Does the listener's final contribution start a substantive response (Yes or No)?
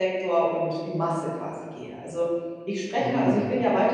No